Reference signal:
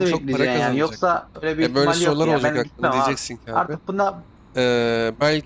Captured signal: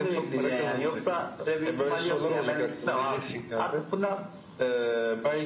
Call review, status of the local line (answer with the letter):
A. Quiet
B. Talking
A